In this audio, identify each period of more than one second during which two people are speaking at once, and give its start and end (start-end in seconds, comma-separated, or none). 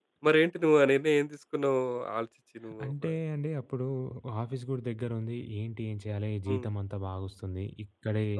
none